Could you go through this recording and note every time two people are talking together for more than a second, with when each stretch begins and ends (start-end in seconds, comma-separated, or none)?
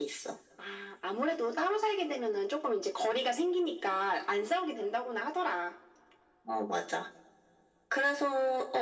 none